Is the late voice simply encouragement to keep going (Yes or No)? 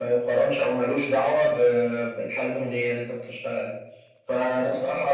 Yes